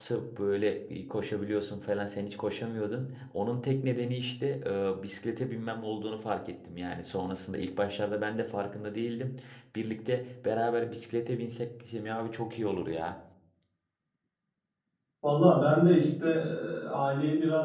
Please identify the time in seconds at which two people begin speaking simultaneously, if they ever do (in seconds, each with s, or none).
none